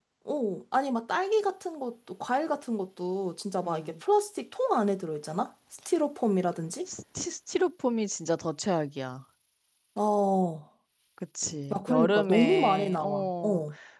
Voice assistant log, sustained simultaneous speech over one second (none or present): present